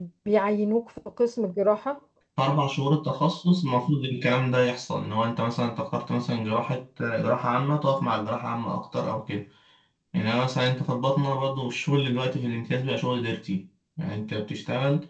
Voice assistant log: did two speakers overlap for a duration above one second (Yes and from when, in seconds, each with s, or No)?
No